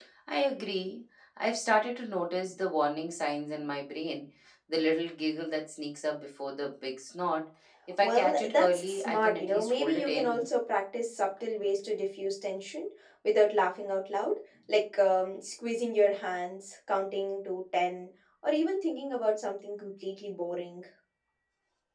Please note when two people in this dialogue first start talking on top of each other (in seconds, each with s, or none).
8.0 s